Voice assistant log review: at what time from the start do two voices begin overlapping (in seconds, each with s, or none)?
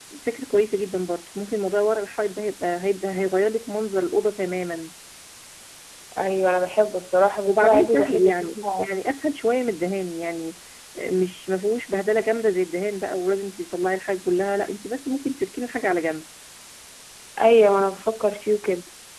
7.5 s